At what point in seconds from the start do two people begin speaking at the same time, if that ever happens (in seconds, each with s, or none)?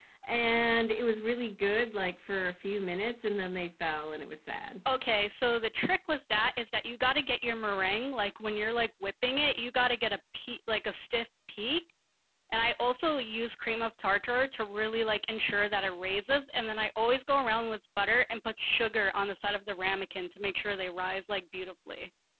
none